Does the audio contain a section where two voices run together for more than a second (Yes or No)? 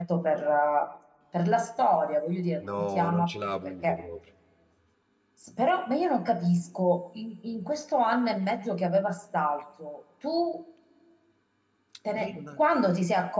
Yes